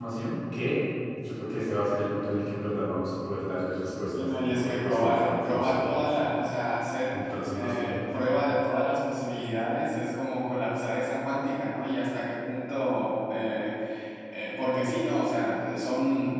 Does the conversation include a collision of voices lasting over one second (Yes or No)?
Yes